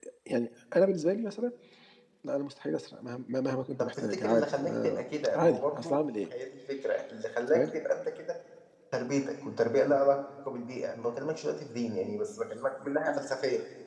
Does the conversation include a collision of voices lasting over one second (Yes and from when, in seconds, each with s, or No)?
Yes, from 3.8 s